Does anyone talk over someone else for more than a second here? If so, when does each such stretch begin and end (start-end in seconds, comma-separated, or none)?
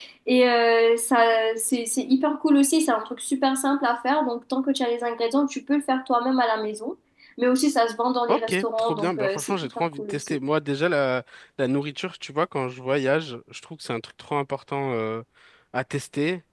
8.3-10.4